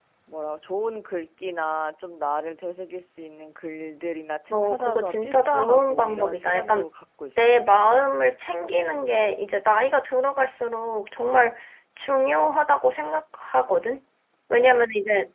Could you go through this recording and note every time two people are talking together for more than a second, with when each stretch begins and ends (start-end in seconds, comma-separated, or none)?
4.5-6.8